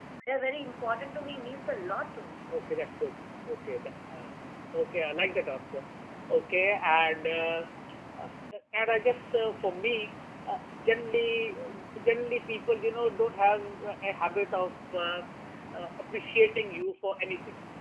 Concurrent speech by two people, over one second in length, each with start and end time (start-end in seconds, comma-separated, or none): none